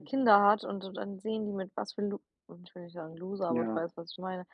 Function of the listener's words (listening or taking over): listening